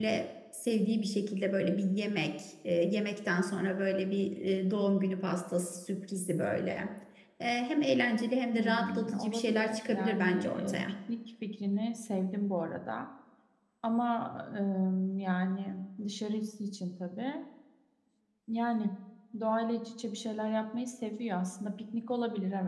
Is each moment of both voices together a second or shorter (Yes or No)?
No